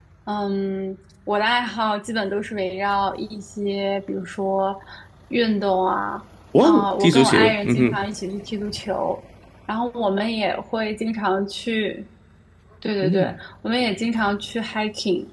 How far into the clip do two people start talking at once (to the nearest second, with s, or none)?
7 s